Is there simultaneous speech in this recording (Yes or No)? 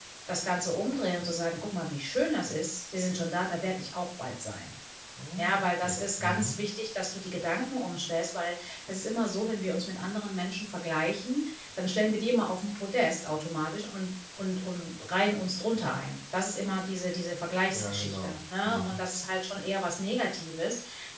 Yes